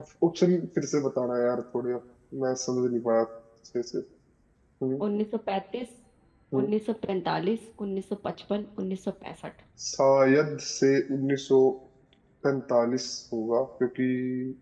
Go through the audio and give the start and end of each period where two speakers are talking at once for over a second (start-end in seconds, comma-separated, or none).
none